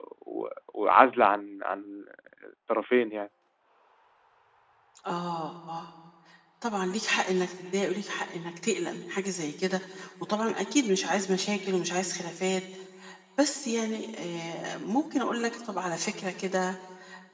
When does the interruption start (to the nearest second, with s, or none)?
none